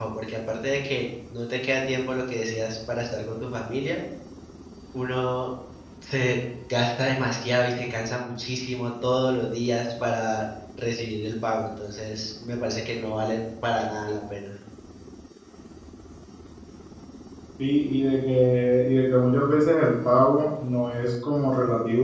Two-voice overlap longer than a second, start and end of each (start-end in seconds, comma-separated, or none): none